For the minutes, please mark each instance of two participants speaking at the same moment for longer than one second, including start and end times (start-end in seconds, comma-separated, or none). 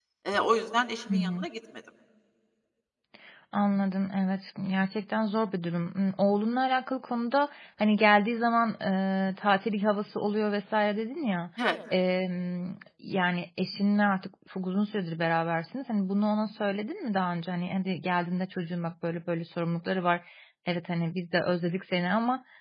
none